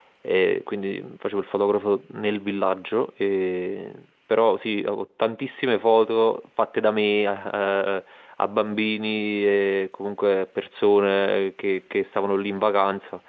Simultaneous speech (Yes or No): No